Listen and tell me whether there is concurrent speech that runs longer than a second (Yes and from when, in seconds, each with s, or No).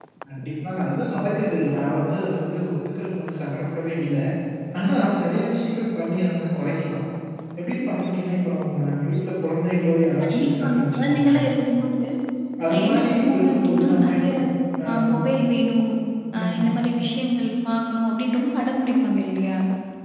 Yes, from 10.2 s